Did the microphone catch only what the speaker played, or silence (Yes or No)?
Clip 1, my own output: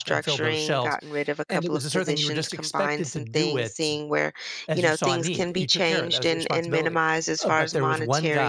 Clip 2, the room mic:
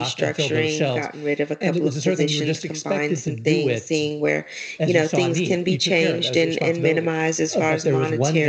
Yes